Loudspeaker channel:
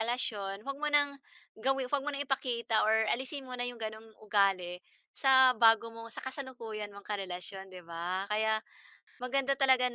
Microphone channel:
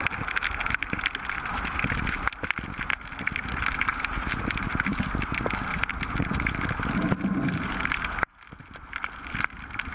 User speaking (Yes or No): No